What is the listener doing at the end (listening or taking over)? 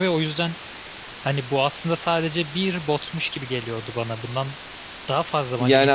taking over